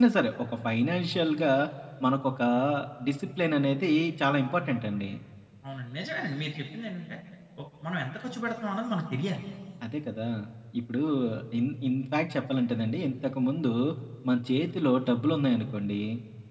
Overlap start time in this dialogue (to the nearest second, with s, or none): none